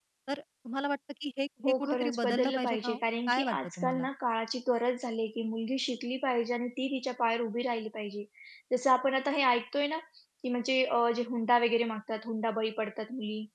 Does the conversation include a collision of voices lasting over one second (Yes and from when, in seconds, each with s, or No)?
Yes, from 1.6 s